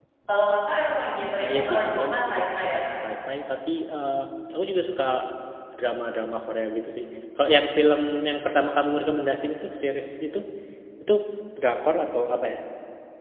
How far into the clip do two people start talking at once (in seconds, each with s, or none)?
1.4 s